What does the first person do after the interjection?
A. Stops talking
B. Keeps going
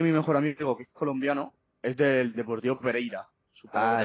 A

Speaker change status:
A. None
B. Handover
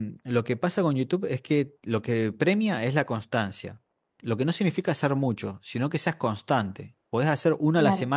A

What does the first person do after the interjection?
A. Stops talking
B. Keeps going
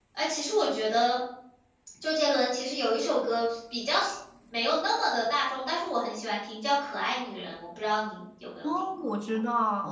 A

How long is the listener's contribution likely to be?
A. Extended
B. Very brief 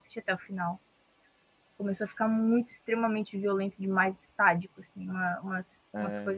B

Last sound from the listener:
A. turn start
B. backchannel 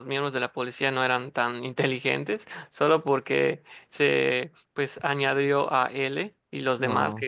B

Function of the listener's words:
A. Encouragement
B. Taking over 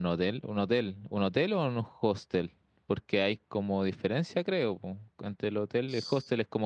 A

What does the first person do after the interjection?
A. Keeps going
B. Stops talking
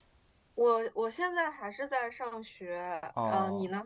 B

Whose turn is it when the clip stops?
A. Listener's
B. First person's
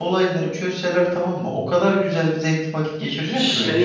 A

